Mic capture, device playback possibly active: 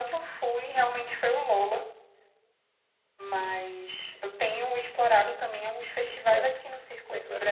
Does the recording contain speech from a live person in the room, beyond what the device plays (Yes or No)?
Yes